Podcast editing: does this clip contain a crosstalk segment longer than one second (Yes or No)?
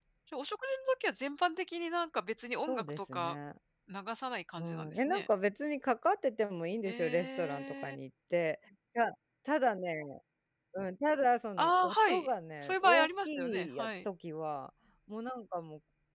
Yes